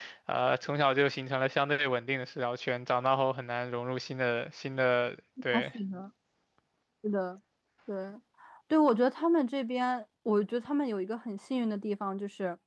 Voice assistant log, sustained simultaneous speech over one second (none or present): none